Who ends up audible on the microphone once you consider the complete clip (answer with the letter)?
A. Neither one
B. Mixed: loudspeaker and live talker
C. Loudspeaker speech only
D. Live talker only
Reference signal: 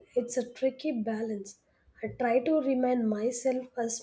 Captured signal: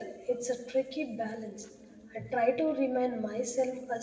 C